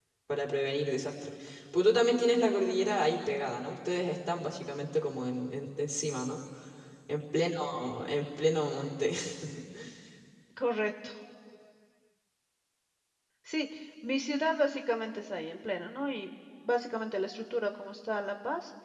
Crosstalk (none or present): none